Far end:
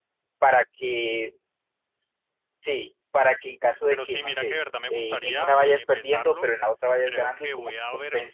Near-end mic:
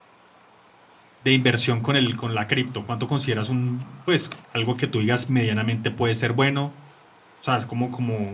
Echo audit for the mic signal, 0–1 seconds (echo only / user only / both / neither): neither